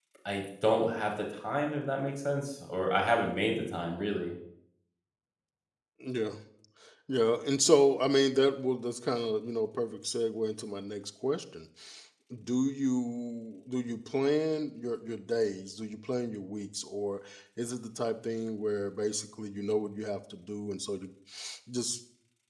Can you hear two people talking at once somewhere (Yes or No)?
No